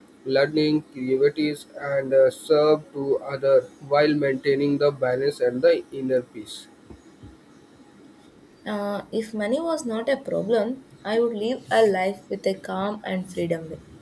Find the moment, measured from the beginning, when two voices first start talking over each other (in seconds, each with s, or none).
none